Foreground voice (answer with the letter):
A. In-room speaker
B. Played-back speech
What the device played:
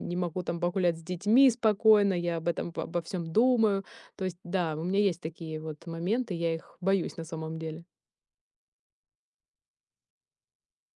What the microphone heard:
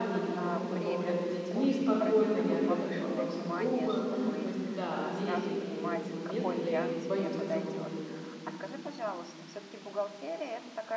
B